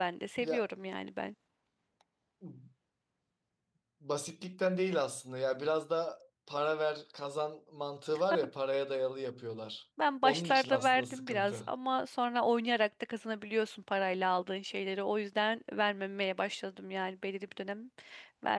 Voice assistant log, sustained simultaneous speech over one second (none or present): present